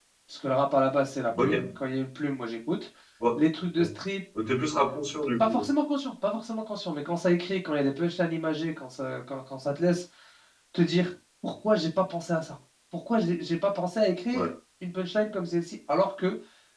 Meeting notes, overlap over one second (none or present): none